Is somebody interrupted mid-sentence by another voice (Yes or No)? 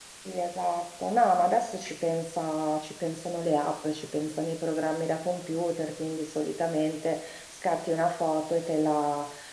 No